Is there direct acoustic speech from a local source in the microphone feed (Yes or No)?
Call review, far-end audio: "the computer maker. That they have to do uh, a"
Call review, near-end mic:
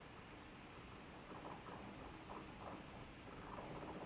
No